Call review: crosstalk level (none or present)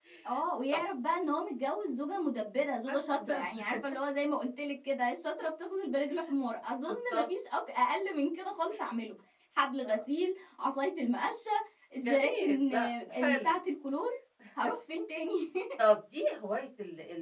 present